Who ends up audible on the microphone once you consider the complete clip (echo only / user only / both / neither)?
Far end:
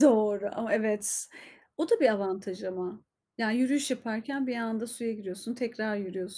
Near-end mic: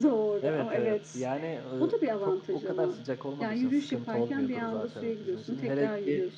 both